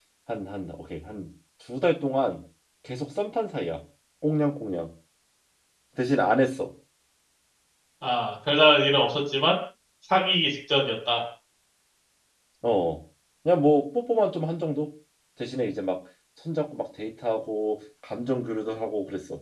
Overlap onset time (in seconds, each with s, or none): none